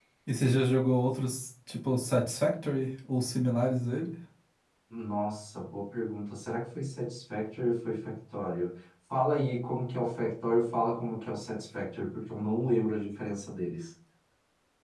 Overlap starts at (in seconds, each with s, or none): none